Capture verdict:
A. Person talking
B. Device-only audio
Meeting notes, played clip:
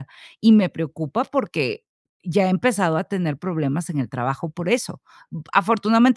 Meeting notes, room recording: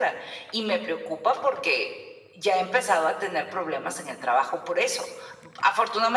B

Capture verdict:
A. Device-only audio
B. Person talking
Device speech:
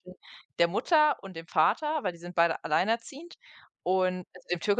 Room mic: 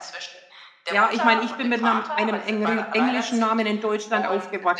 B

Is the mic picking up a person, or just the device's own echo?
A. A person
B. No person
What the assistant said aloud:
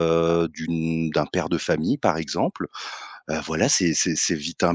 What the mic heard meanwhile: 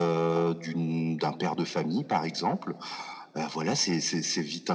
B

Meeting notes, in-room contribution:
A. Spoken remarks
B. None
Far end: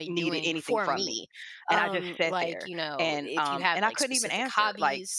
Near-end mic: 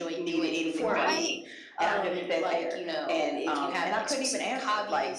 A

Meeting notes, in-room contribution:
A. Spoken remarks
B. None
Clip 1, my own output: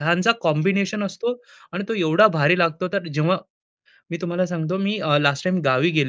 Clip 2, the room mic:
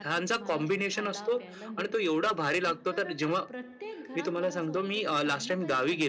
A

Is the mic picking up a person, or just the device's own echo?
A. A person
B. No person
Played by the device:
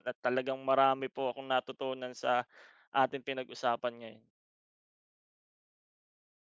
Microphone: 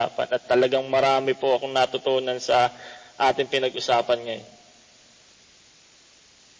B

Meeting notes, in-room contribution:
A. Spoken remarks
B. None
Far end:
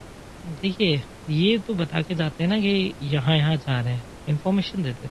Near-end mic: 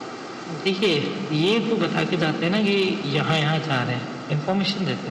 B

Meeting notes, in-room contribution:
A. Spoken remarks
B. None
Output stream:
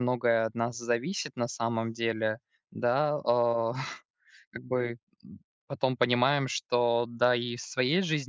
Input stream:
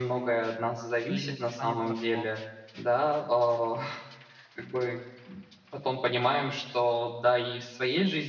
A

